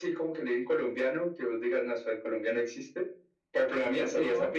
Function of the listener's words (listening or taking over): taking over